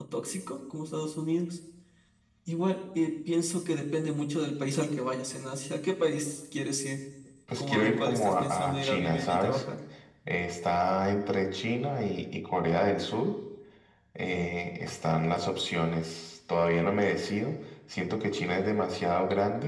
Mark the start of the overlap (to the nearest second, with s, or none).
8 s